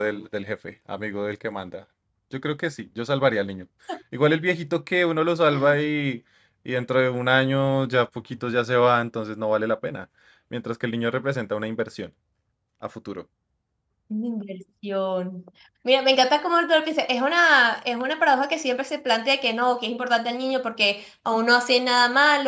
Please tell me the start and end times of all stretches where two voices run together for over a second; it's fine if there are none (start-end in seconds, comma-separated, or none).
none